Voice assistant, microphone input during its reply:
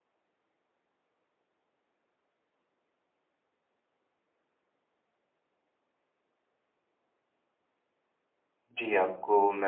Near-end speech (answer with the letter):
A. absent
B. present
B